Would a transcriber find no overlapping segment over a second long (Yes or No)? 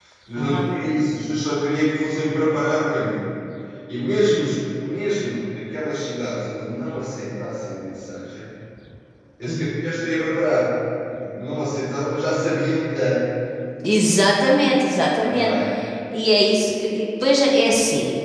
Yes